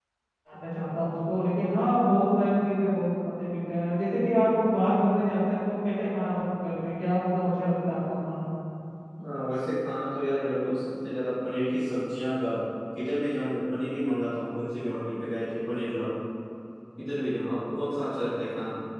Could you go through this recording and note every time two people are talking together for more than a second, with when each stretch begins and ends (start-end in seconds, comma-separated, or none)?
none